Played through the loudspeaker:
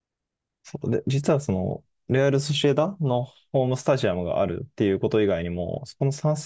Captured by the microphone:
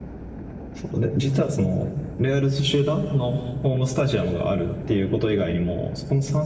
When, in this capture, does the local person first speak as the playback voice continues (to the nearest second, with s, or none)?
none